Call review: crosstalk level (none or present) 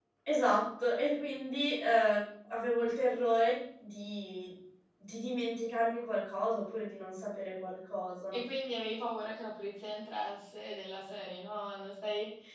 none